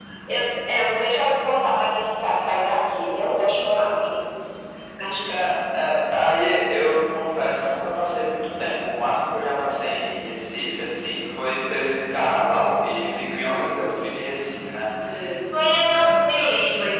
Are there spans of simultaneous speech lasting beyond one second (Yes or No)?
No